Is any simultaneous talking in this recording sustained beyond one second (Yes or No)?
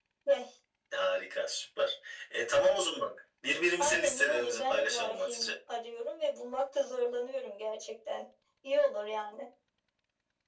Yes